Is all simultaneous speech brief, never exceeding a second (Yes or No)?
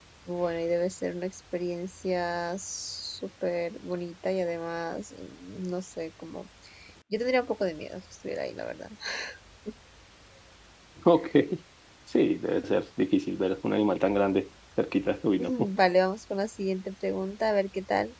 Yes